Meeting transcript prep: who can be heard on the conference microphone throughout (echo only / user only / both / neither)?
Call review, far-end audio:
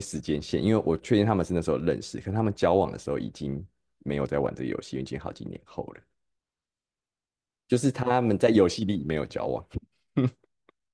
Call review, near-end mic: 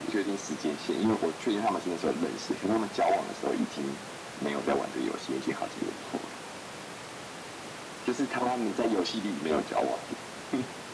echo only